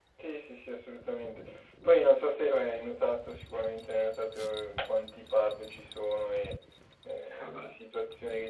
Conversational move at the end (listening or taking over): listening